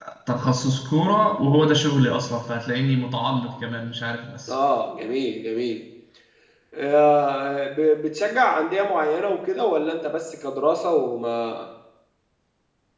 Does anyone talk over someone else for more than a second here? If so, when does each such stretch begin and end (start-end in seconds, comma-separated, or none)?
none